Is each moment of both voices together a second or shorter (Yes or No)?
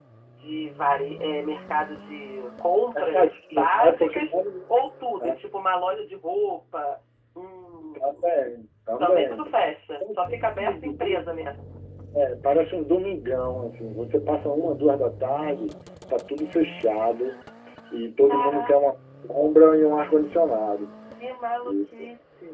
No